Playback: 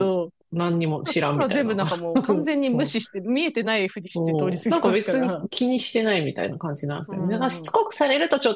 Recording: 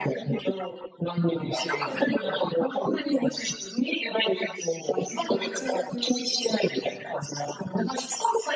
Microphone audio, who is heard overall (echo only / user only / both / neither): both